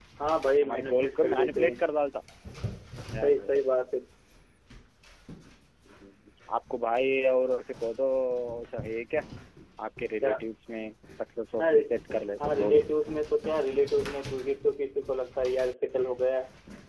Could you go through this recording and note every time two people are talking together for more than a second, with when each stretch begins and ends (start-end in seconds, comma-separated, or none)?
0.6-1.8